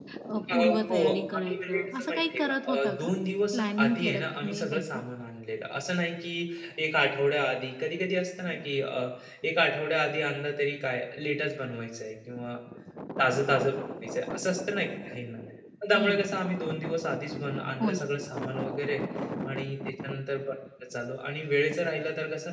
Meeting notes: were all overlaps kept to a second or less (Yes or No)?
No